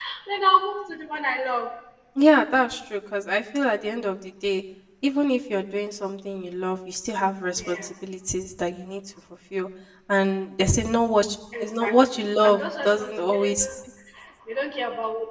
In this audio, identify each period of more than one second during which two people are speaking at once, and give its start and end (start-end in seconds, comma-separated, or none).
11.6-13.5